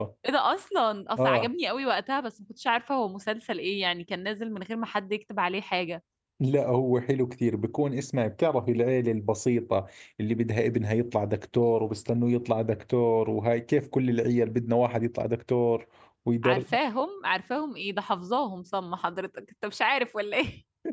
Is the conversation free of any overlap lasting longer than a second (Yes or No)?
Yes